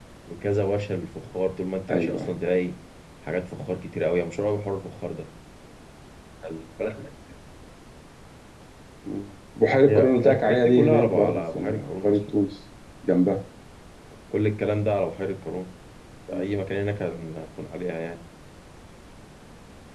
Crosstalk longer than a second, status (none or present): present